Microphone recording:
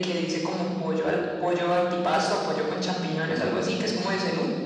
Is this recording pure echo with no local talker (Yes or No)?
Yes